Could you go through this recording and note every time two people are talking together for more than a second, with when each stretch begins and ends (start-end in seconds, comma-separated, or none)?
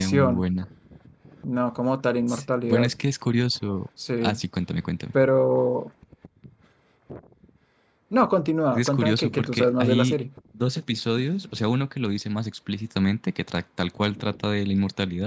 8.7-10.2